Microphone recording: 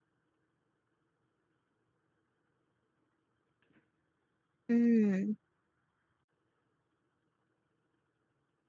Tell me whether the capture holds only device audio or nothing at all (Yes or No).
No